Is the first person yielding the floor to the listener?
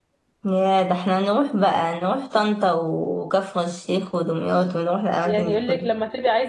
Yes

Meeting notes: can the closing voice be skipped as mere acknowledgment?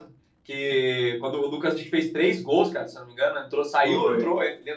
Yes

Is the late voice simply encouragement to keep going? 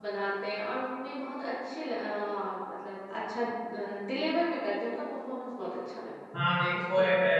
No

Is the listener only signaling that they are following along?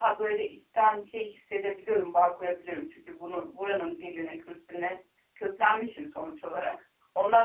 Yes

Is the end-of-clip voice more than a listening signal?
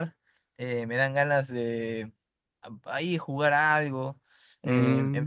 No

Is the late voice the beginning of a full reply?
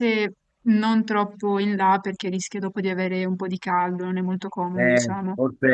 Yes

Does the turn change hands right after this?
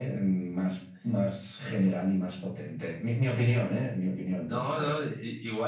Yes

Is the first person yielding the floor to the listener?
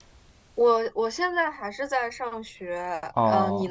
Yes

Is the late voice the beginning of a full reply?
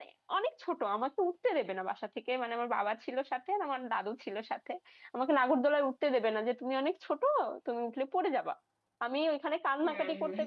No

